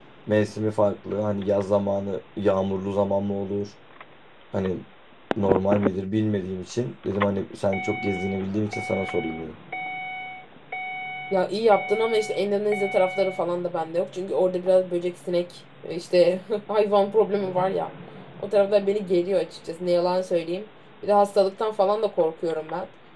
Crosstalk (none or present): none